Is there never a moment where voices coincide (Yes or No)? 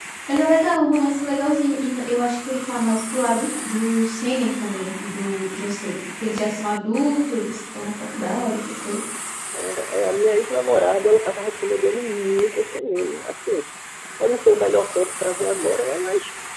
Yes